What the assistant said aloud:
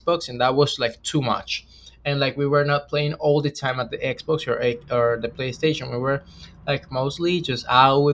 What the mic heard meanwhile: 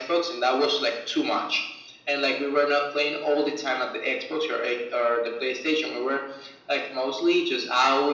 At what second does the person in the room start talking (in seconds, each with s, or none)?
none